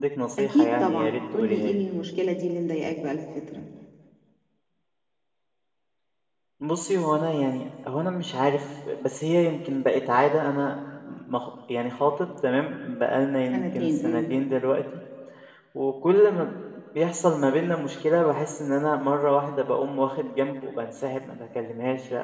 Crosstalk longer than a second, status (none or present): present